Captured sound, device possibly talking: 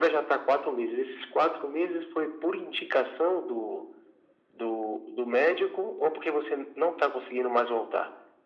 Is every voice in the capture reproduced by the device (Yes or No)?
Yes